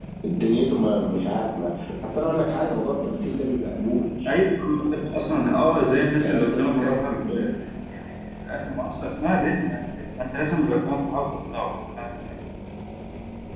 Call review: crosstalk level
present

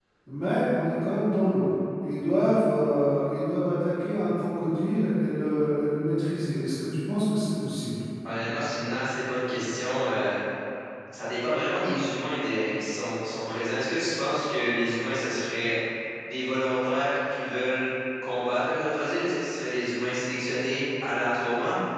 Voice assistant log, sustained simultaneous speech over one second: none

